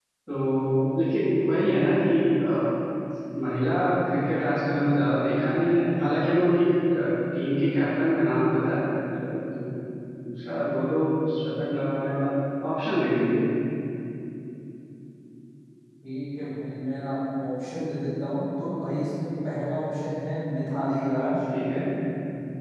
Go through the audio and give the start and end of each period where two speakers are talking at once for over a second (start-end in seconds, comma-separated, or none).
none